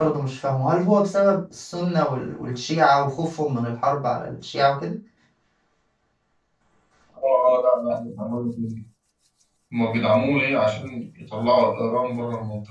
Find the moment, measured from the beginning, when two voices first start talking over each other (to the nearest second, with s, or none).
none